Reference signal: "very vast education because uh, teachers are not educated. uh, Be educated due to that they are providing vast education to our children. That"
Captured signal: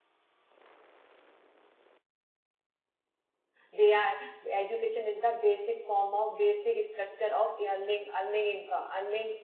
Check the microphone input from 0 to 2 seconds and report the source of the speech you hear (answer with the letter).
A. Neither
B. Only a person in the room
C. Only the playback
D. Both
A